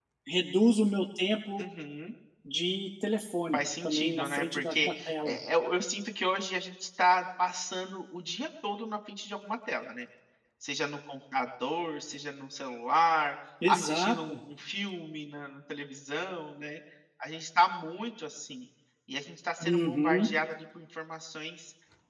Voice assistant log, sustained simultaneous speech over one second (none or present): present